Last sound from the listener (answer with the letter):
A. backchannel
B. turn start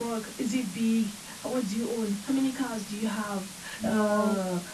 A